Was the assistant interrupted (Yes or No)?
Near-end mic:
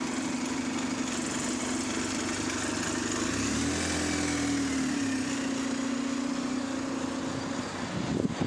No